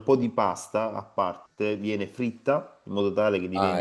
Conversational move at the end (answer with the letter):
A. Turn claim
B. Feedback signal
B